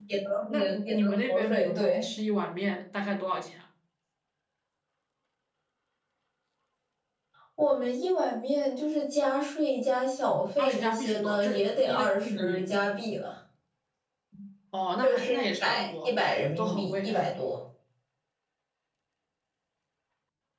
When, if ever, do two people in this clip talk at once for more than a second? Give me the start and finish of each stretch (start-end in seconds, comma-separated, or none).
0.5-2.0, 10.6-12.8, 15.0-17.3